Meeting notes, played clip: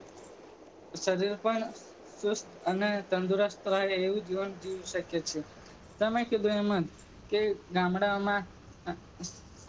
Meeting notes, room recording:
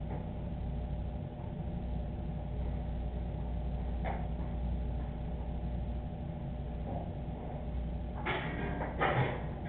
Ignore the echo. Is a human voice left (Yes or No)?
No